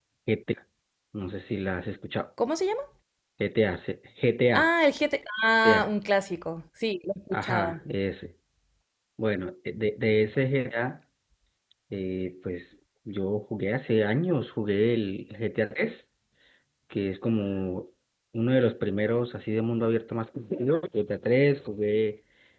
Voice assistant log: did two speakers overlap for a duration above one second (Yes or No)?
No